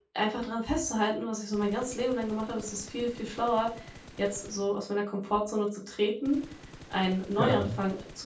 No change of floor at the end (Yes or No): Yes